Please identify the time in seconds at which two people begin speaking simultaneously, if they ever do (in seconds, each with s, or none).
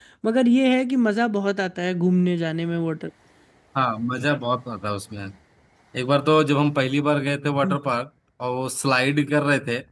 none